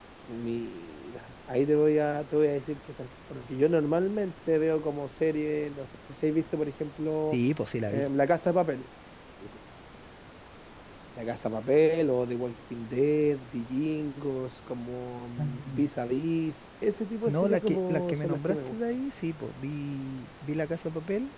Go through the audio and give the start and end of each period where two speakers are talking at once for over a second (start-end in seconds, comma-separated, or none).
17.3-18.7